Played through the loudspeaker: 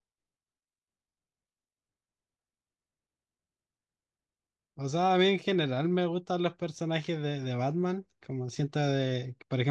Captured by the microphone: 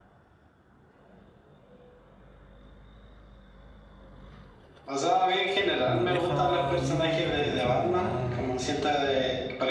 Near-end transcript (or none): no deja libre la interpretación de nada.